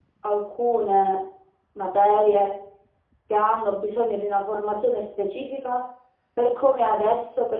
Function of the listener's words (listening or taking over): listening